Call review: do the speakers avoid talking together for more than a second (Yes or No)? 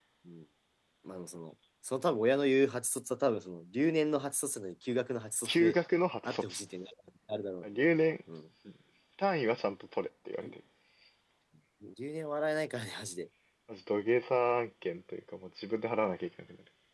Yes